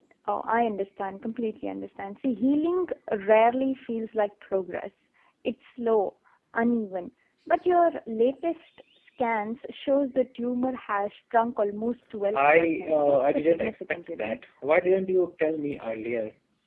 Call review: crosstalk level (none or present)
present